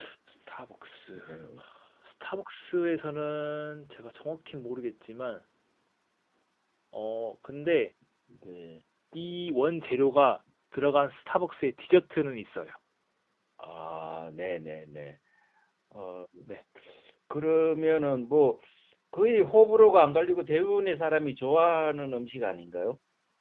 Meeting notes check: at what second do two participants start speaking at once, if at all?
none

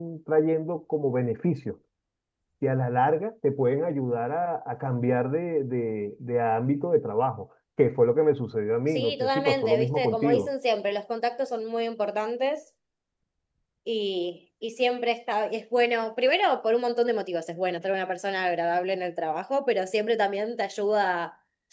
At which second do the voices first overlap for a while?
8.9 s

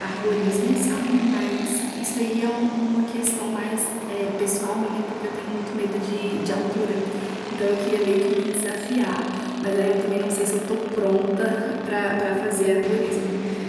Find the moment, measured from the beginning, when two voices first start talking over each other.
none

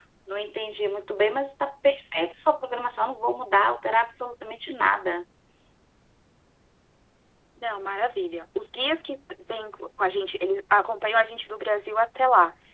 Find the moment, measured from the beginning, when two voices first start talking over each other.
none

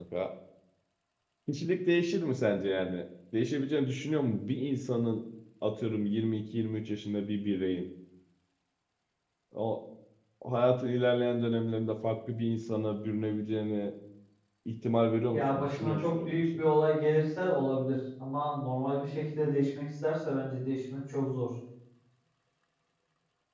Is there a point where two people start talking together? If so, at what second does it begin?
15.3 s

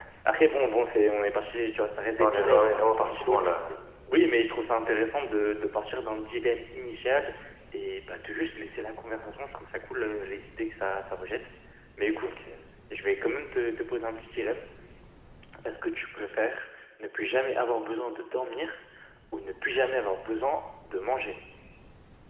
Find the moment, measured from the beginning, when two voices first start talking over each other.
2.2 s

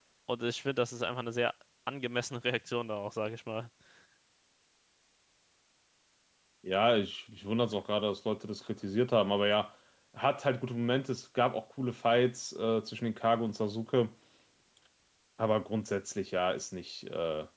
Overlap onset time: none

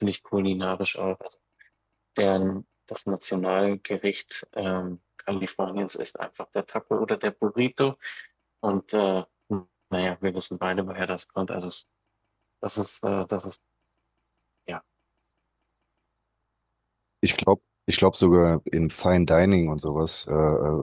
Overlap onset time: none

